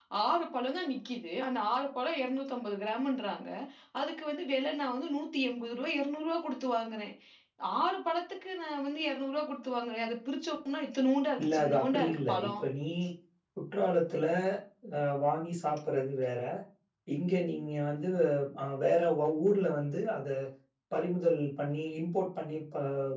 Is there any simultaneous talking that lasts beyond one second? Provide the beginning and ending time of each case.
11.4-12.6

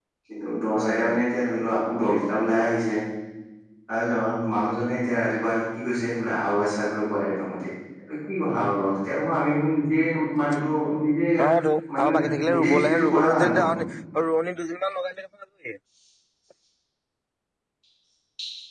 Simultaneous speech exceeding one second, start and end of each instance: 12.0-13.6

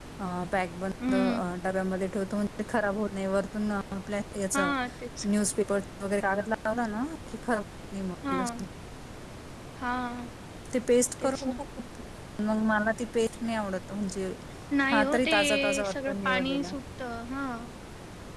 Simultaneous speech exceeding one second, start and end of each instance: 14.9-16.7

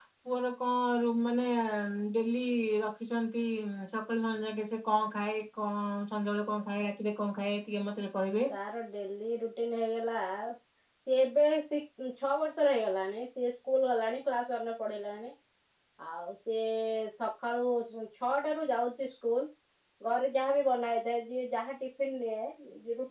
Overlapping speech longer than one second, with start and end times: none

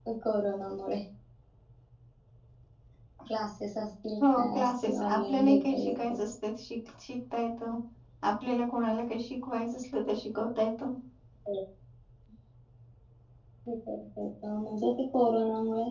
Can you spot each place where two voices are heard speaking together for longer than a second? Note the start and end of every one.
4.4-6.2

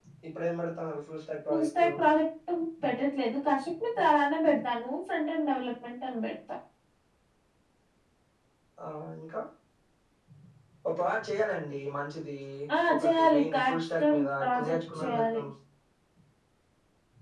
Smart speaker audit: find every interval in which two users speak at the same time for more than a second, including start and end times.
12.9-15.4

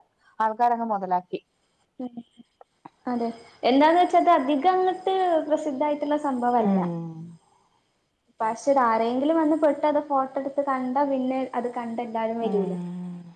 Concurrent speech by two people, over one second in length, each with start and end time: none

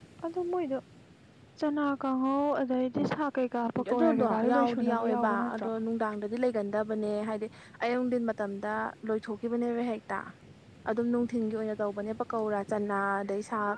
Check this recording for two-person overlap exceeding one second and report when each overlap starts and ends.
3.9-5.7

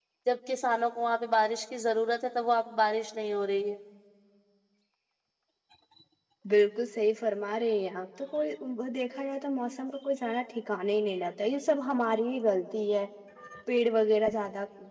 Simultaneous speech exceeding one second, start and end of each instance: none

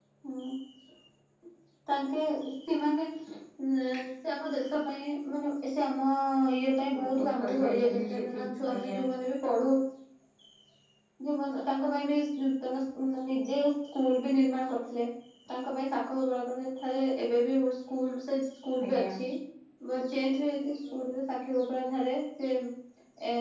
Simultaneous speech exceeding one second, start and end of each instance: 7.2-8.9

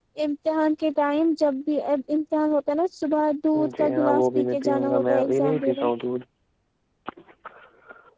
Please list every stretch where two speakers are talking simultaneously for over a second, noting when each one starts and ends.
3.8-5.9

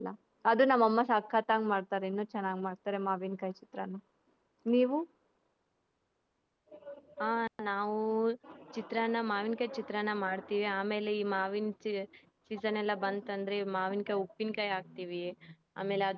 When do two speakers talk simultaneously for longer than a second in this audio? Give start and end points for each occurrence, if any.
none

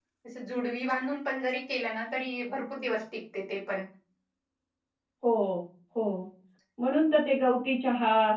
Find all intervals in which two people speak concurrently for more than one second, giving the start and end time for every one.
none

